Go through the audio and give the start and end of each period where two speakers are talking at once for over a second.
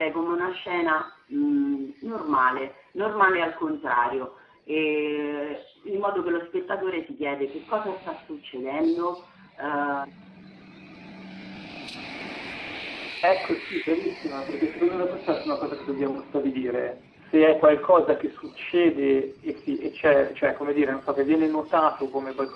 none

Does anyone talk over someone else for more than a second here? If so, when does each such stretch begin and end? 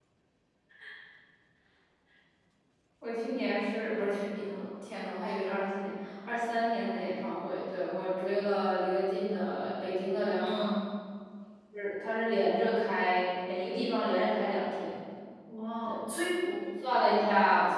none

